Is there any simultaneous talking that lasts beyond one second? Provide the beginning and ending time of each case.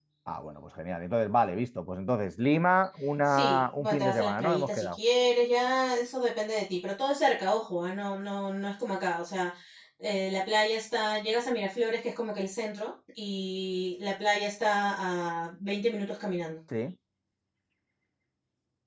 3.3-5.0

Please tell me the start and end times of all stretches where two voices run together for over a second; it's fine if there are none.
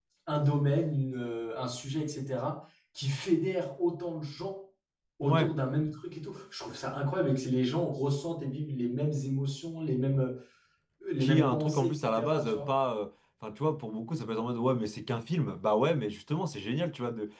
11.2-12.7

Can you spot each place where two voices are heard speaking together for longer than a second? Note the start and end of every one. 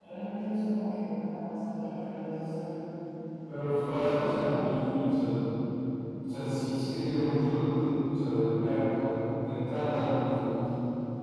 3.5-4.8

